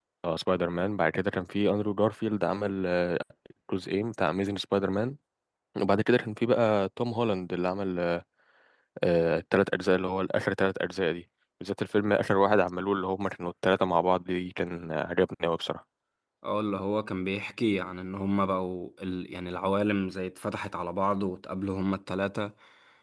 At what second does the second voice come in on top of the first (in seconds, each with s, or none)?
none